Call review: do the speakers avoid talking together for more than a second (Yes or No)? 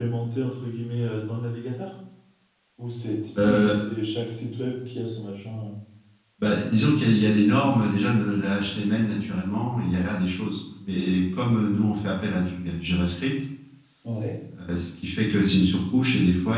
Yes